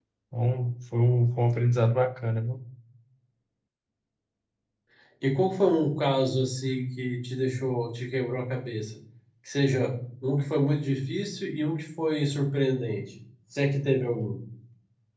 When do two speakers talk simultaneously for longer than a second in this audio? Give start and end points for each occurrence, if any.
none

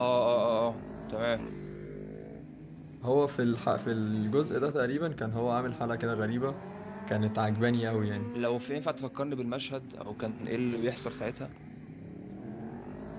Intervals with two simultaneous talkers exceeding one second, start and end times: none

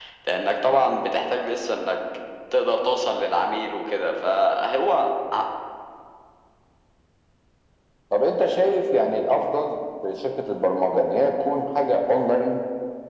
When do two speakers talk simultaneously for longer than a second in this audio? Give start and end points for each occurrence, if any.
none

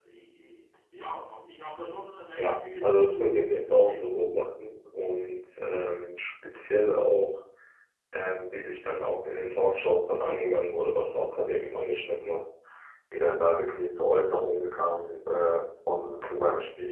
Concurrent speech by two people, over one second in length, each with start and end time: 2.4-4.2

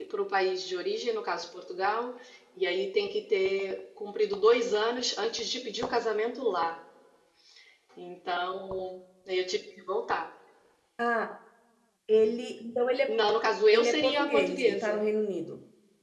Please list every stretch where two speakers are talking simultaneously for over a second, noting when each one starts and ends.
13.7-15.0

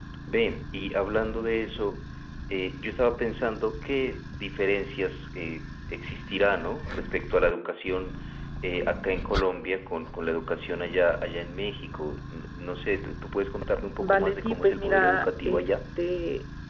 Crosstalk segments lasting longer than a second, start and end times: 14.0-15.8

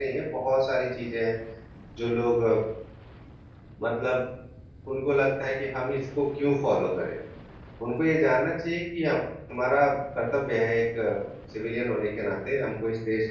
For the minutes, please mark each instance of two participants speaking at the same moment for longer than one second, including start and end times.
none

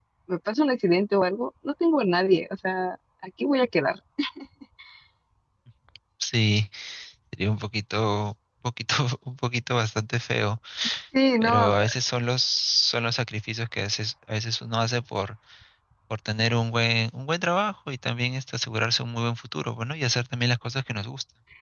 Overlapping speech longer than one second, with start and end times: none

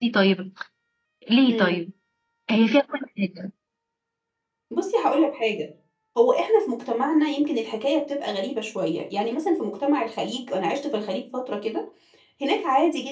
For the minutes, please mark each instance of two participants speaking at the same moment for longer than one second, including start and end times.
none

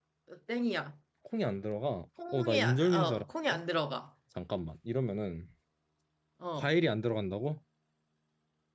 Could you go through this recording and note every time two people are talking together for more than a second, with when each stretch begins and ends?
2.3-3.6

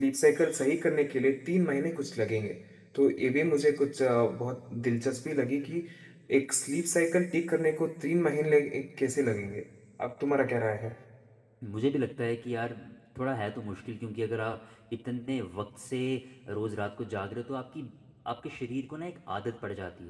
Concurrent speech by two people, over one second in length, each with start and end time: none

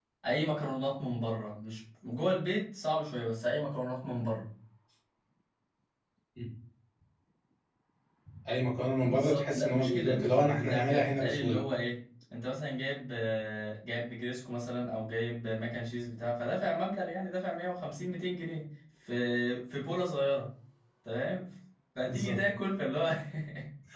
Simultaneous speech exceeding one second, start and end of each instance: 9.0-11.6

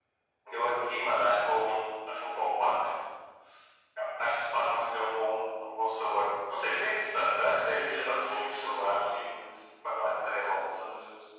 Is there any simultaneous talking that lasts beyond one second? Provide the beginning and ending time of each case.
7.6-9.0

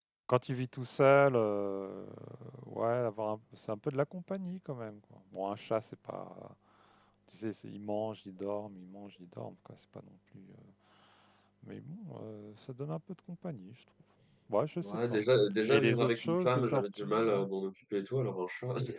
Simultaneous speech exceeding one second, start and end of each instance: 15.7-17.4

